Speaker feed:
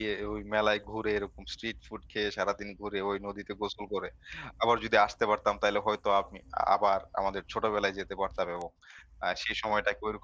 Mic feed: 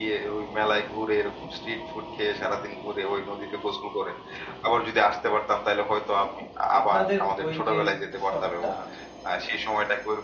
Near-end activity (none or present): present